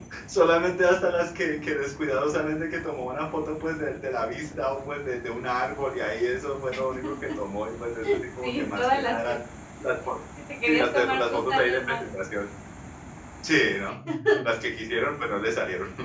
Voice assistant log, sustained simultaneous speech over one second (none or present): present